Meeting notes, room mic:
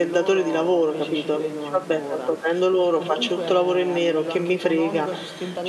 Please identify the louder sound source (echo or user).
user